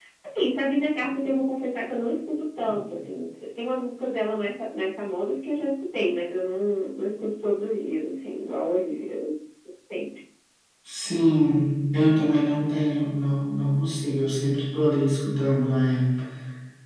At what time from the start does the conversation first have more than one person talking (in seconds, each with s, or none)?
none